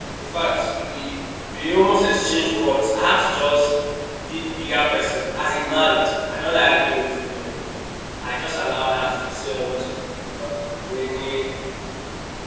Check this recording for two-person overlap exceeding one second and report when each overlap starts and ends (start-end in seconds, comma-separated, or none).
none